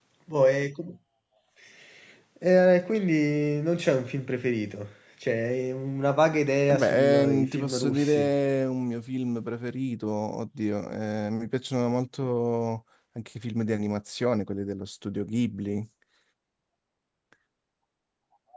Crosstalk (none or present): present